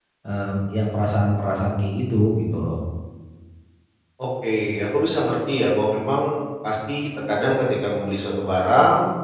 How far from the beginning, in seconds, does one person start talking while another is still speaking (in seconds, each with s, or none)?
none